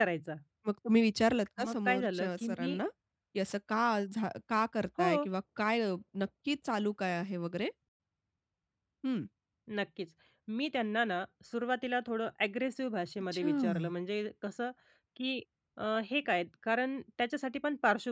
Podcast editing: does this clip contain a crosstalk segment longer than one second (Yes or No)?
Yes